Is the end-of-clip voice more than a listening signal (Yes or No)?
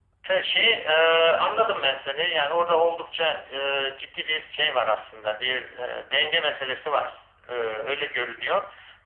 No